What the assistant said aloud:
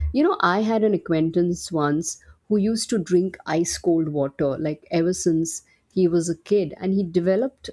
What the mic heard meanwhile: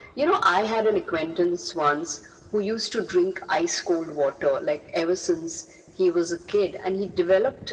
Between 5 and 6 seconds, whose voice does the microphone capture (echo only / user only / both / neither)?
echo only